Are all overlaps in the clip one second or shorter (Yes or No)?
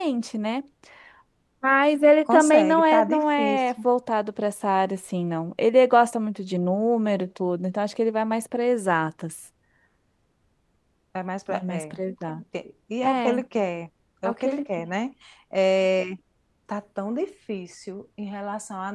No